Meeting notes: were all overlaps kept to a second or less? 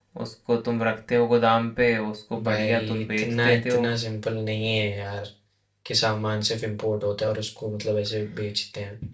No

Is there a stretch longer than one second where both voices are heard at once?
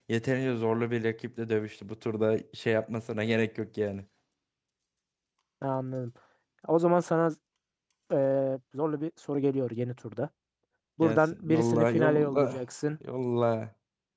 Yes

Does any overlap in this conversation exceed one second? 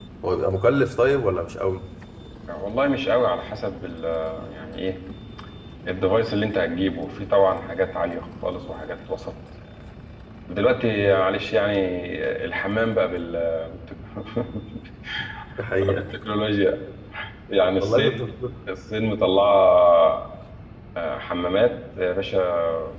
No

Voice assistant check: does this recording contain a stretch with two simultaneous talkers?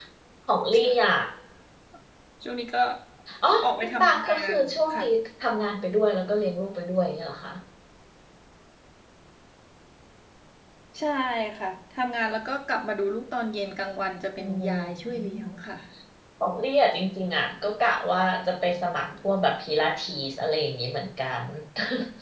Yes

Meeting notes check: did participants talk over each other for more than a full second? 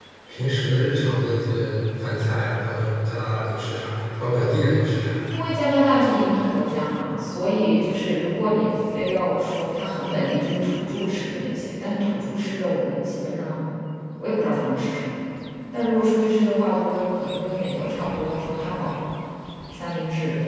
No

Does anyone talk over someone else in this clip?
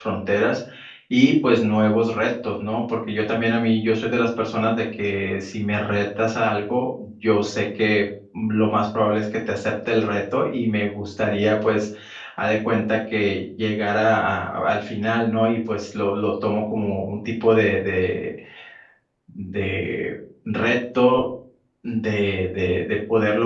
No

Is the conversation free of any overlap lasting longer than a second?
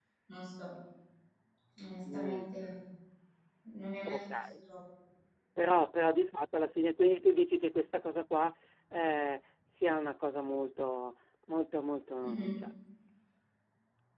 Yes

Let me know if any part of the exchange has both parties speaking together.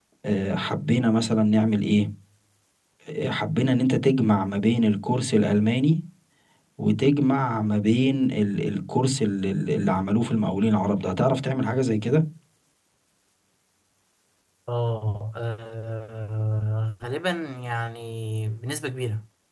No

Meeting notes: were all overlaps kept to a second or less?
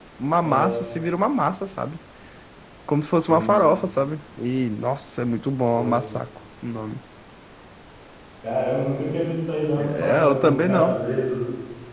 No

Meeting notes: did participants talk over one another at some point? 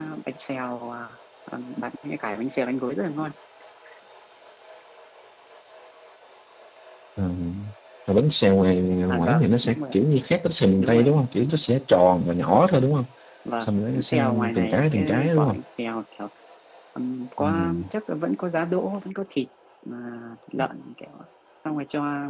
Yes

